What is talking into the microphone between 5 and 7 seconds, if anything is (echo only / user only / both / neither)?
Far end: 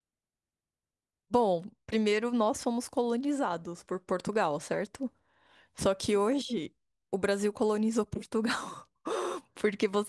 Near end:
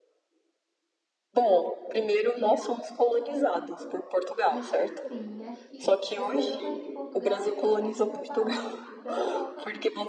both